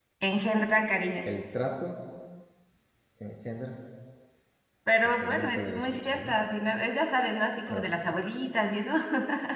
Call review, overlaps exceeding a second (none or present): present